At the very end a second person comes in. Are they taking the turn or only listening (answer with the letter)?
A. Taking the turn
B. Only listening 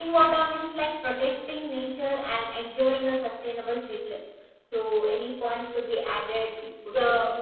A